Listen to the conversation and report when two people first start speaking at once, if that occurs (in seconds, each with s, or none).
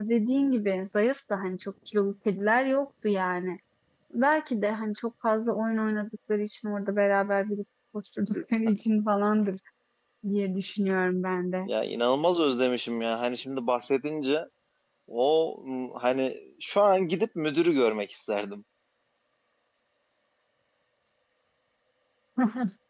none